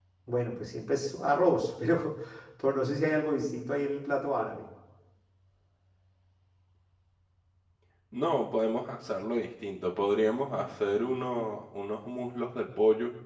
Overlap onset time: none

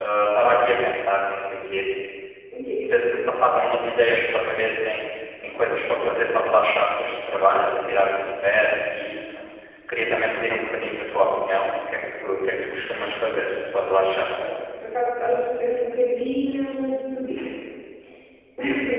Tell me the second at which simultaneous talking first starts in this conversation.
none

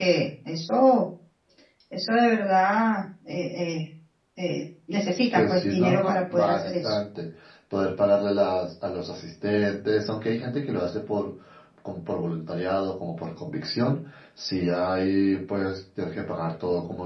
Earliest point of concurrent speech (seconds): 5.3 s

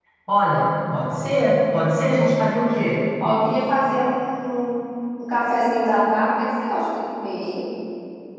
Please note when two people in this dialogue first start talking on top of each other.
none

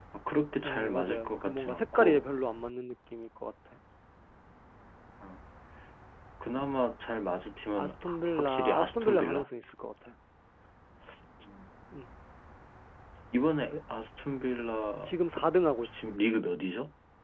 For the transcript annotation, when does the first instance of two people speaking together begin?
0.6 s

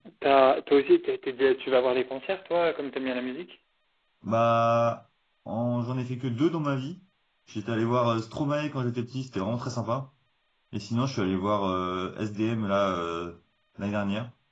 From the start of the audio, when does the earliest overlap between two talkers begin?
none

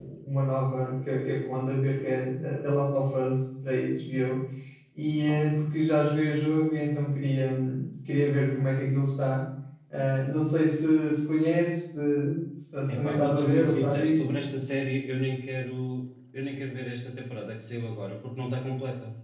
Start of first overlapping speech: 12.9 s

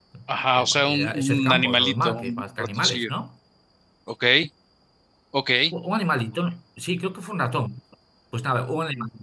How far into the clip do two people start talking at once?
0.6 s

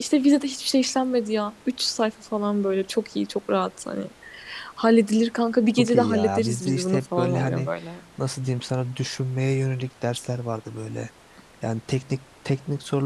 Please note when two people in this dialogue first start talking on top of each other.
5.8 s

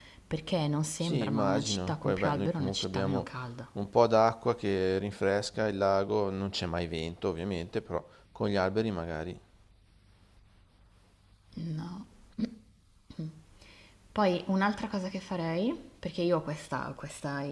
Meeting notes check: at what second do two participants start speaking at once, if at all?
1.0 s

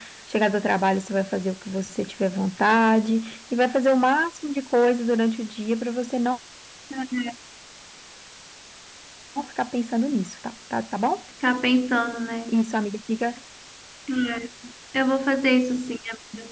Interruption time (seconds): none

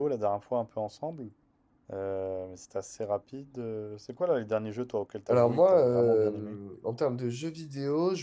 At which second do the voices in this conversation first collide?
5.3 s

